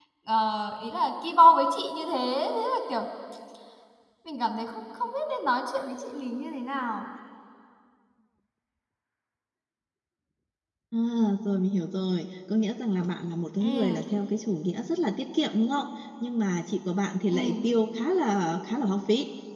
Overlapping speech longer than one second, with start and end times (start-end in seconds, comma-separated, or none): none